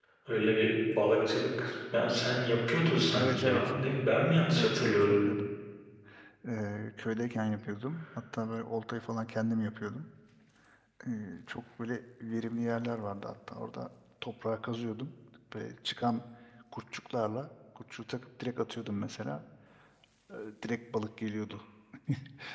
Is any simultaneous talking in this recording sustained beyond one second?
No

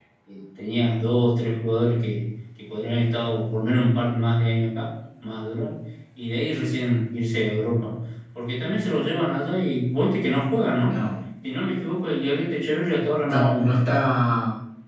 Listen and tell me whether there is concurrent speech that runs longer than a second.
No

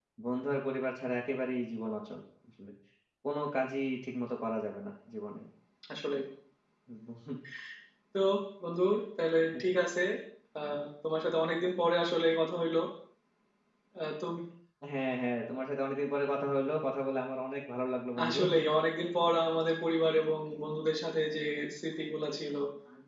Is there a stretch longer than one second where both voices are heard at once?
No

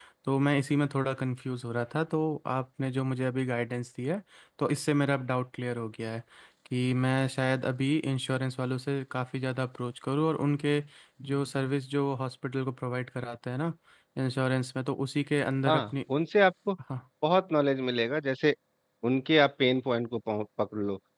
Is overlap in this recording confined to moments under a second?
Yes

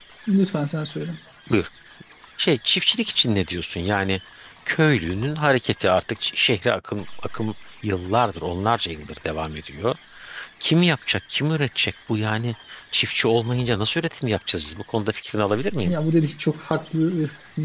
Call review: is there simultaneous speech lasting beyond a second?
No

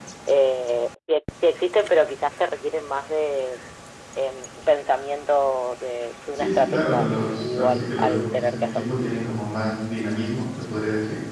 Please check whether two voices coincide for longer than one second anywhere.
Yes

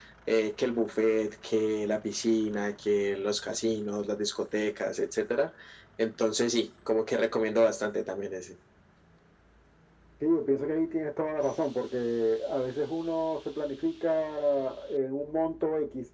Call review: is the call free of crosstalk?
Yes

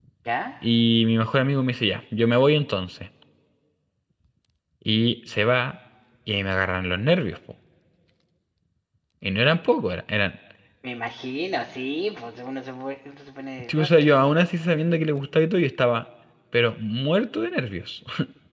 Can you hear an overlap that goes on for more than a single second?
No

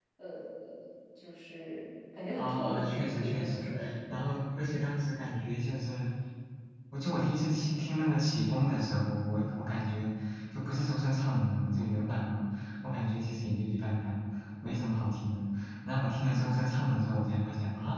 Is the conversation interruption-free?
No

